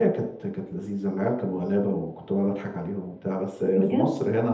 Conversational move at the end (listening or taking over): listening